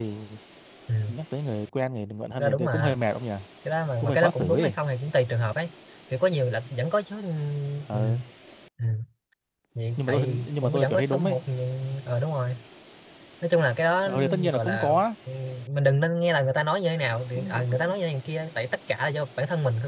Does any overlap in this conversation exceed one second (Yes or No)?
Yes